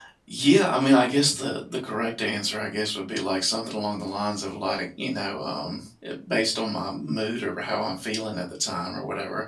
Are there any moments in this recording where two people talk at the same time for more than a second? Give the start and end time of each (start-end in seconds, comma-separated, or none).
none